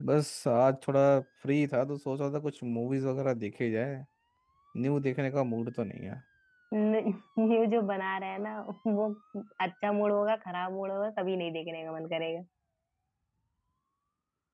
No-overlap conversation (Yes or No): Yes